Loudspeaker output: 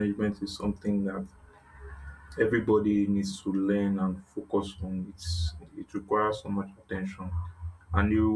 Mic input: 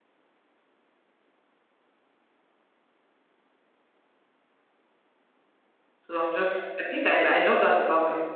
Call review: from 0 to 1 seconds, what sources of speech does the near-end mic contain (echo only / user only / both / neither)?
neither